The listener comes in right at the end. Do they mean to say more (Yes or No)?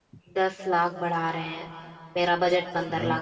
Yes